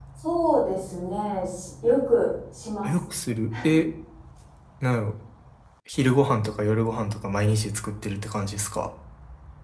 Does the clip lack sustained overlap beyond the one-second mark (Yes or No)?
Yes